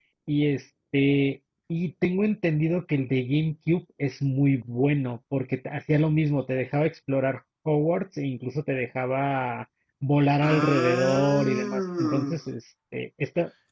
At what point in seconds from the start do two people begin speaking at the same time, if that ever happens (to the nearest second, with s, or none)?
10 s